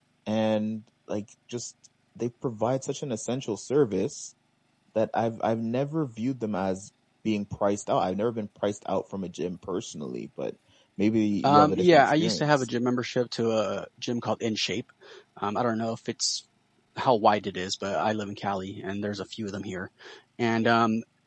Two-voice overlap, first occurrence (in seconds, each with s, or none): 11.4 s